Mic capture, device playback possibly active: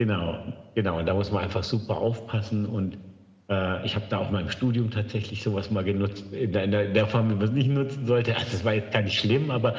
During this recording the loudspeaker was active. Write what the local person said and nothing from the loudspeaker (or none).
none